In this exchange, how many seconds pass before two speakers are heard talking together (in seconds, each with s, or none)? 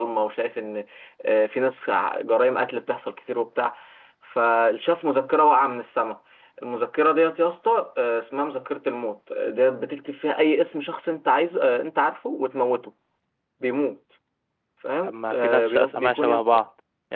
15.0 s